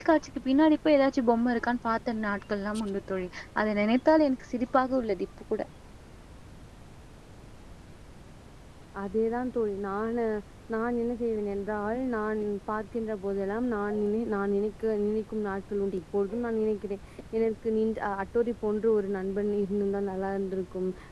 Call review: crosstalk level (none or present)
none